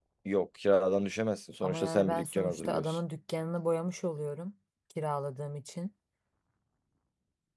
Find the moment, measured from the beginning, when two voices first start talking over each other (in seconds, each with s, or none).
1.6 s